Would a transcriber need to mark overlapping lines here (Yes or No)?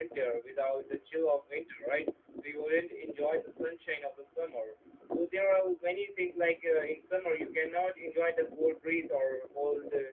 No